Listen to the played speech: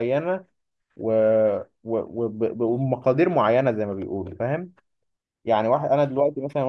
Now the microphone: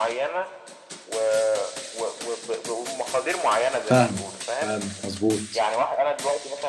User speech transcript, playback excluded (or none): فاهمك فاهمك مظبوط